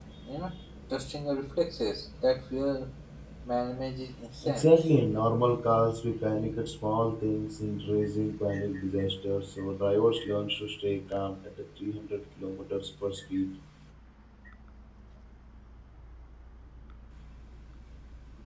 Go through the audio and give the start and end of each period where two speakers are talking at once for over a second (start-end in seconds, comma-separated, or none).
none